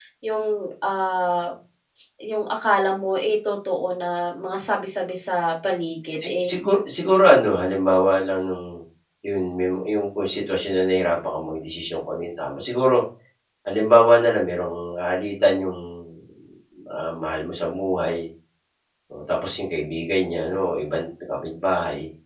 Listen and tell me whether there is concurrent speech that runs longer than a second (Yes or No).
No